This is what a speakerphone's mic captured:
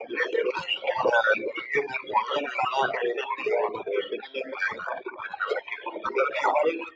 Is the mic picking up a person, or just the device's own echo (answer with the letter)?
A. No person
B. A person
A